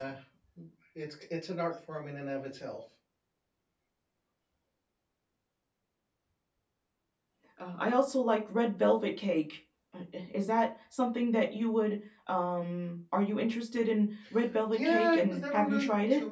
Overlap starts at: 14.7 s

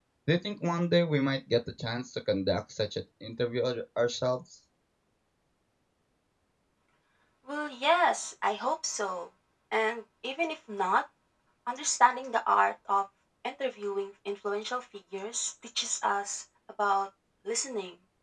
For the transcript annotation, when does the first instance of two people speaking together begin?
none

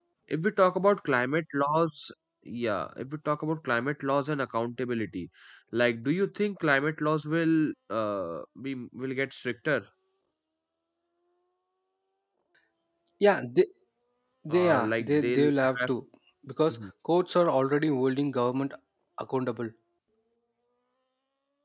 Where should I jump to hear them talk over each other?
14.5 s

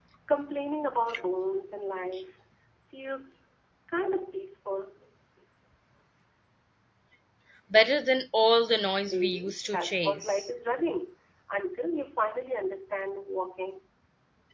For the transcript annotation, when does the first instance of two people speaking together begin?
9.1 s

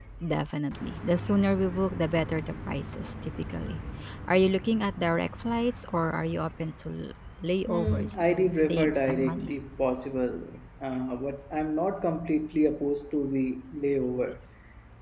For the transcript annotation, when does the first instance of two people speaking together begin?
7.7 s

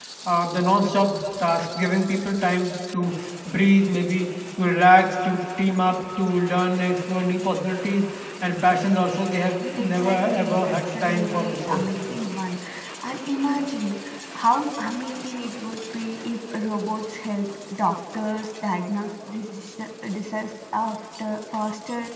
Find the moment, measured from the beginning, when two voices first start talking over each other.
9.8 s

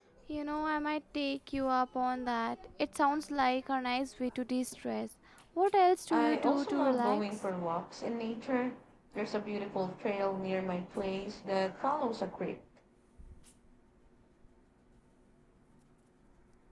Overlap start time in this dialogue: 6.1 s

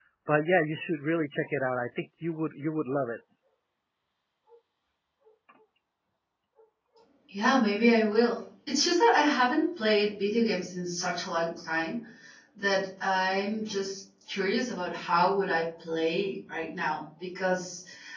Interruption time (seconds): none

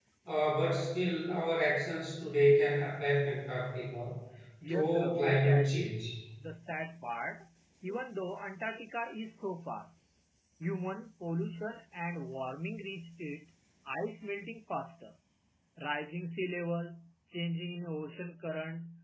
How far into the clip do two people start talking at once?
4.7 s

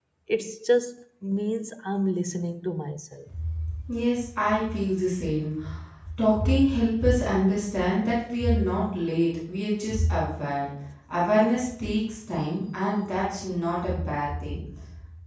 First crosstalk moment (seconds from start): none

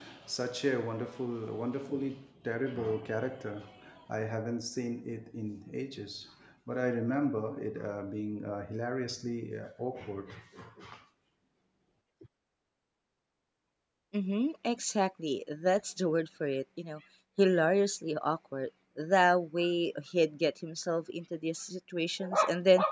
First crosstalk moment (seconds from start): none

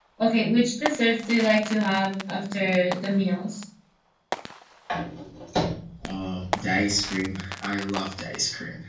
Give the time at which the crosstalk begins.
none

